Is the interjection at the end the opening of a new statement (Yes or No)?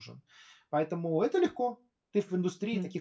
Yes